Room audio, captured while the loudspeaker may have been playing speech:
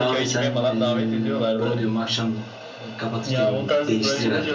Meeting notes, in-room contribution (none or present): present